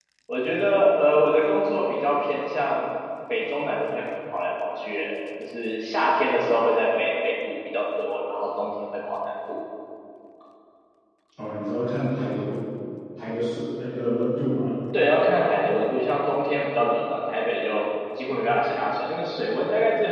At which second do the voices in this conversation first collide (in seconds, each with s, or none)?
none